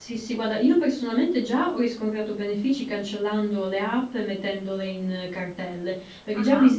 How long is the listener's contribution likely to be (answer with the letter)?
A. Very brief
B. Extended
A